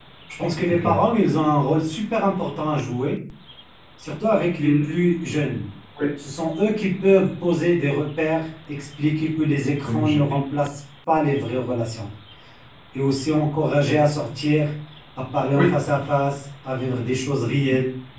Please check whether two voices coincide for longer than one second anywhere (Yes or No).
No